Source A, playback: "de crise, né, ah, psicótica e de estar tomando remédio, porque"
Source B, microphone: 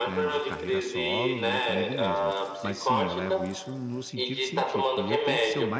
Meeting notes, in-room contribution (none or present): present